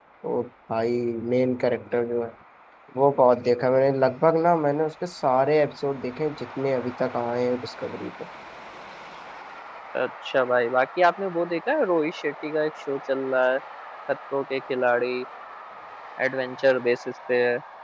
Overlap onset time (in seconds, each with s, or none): none